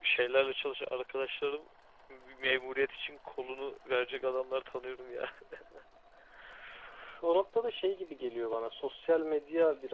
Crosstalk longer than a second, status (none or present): none